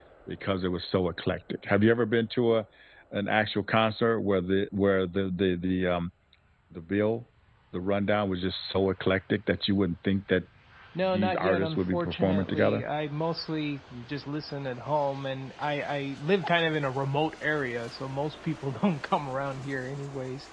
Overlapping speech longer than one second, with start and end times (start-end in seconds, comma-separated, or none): 11.0-12.8